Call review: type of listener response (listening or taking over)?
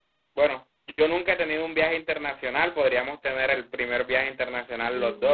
taking over